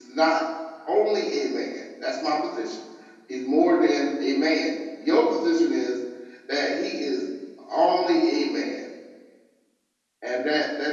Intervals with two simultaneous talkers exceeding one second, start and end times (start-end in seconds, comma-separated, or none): none